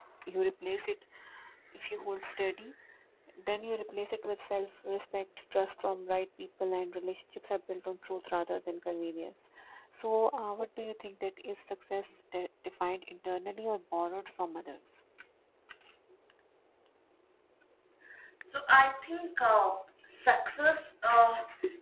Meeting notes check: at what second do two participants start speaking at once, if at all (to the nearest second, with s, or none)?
none